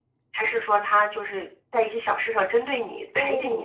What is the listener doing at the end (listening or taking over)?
taking over